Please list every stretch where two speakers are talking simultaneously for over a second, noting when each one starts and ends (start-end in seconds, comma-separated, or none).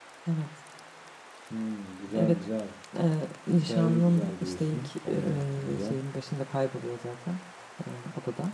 3.7-5.9